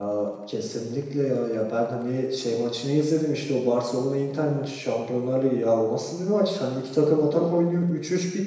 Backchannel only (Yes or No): Yes